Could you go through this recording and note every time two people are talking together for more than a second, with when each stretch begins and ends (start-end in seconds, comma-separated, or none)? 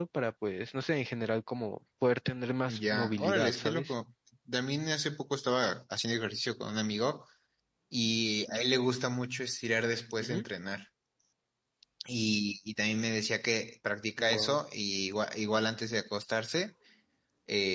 2.6-3.9